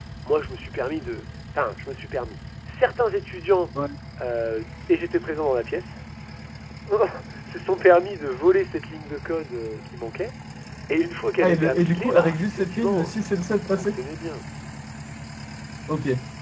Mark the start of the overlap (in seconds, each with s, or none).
11.4 s